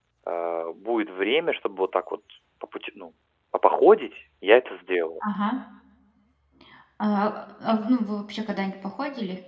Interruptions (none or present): none